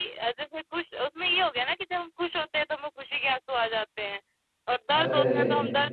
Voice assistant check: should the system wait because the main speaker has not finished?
Yes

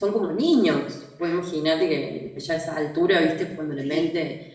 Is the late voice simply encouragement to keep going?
Yes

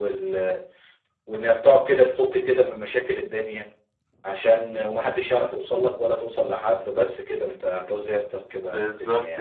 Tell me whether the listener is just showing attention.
No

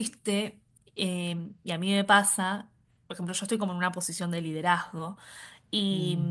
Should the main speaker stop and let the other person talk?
No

